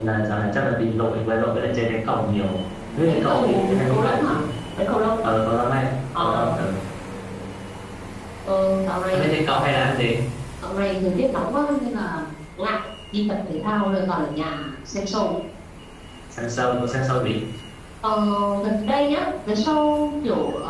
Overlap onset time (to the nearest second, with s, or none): 3 s